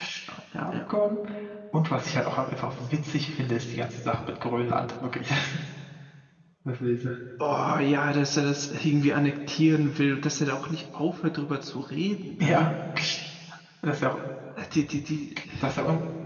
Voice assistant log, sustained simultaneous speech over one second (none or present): none